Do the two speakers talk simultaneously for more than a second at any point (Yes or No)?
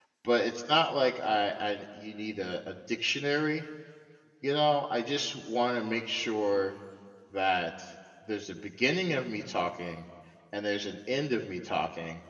No